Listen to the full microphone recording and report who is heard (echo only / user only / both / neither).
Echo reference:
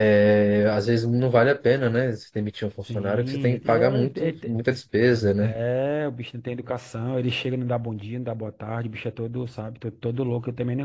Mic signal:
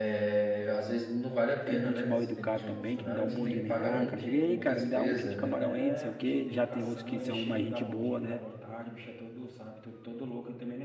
both